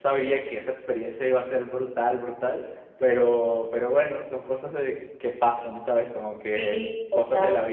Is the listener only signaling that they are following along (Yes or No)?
Yes